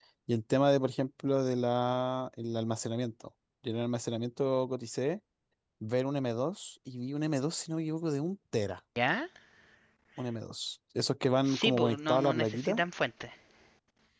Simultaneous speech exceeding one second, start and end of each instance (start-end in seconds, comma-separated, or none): 11.4-12.8